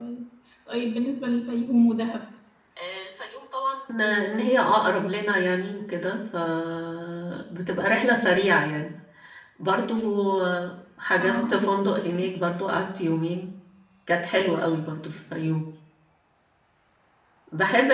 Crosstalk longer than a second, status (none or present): none